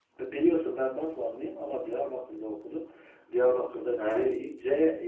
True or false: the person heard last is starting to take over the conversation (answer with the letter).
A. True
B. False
B